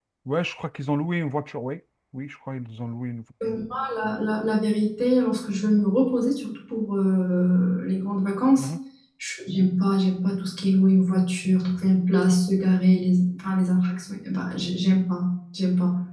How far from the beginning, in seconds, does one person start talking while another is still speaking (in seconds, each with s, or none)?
none